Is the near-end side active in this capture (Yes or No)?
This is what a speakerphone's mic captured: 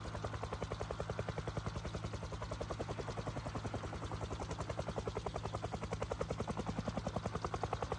No